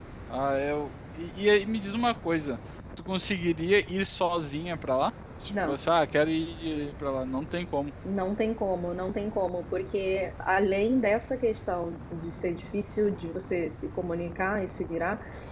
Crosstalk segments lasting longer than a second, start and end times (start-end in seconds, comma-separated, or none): none